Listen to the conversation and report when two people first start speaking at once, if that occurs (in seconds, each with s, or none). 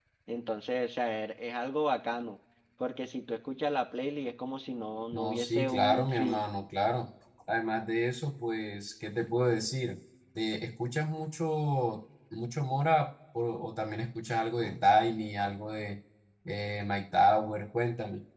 5.1 s